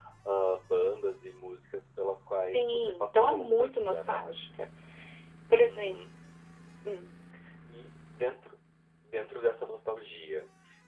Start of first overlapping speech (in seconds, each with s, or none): 2.5 s